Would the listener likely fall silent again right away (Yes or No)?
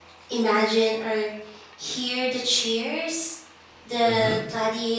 Yes